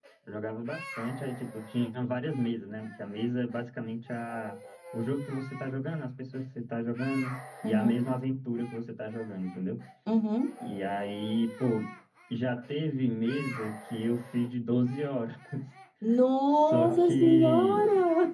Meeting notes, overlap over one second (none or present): present